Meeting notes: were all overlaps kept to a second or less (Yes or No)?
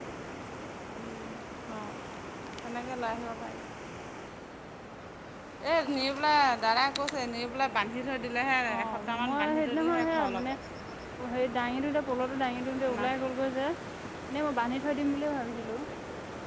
No